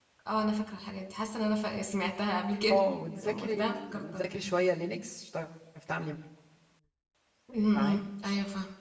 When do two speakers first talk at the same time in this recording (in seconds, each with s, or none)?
2.7 s